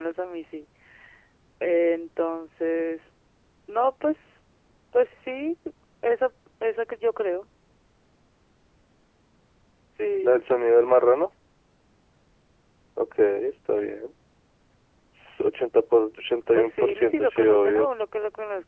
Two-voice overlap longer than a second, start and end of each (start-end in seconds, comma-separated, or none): 16.6-17.9